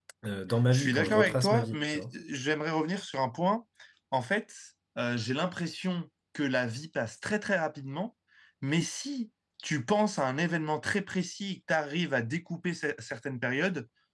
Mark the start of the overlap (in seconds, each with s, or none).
0.7 s